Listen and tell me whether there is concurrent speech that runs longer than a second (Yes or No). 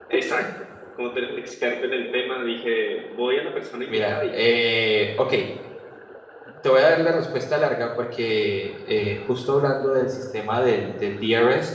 No